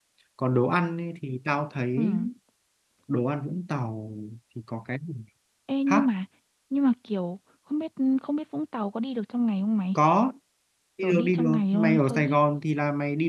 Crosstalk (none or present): present